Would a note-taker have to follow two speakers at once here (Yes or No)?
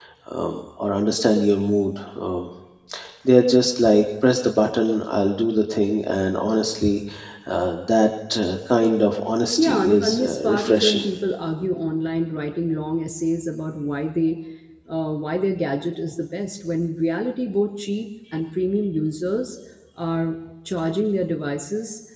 Yes